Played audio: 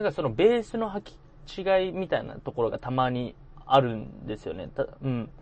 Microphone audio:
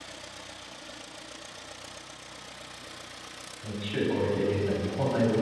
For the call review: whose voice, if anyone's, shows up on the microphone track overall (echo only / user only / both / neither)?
user only